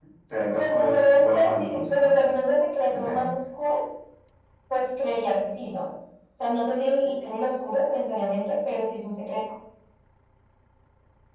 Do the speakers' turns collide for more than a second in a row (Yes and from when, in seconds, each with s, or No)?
Yes, from 0.6 s